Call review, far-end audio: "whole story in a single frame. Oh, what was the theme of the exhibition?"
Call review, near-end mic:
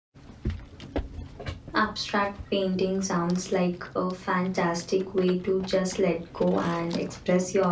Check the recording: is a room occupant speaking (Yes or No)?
Yes